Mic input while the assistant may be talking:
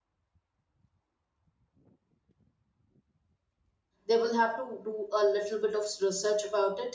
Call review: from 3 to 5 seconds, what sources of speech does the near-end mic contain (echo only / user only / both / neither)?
user only